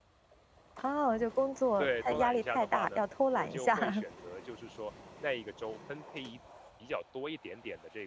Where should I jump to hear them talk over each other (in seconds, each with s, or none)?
1.8 s